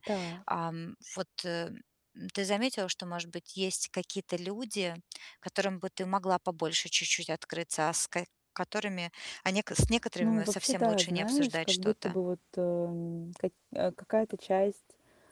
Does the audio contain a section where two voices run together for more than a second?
Yes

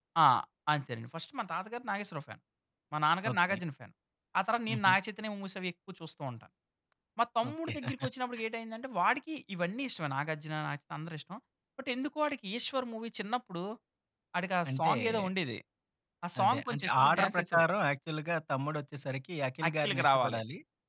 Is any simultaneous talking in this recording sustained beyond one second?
Yes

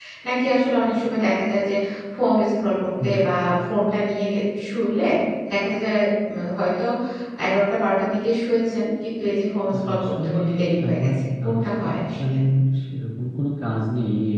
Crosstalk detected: Yes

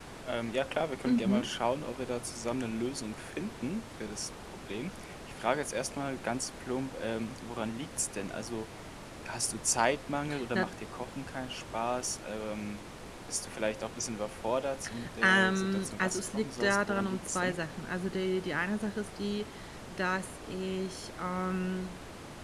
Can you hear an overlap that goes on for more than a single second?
Yes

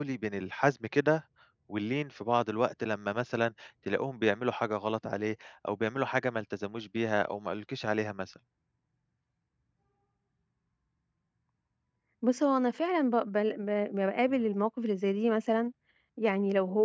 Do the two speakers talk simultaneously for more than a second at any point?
No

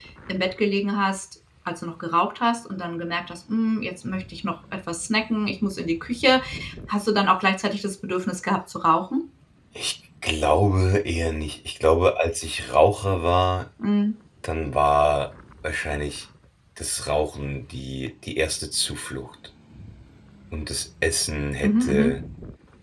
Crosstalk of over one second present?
No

